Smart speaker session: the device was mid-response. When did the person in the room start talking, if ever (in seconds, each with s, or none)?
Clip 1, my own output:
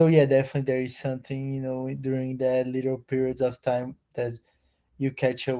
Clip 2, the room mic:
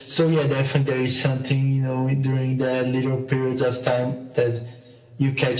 none